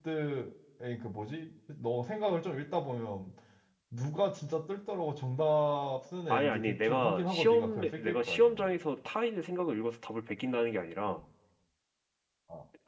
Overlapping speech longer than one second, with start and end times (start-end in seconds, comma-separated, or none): 6.3-8.6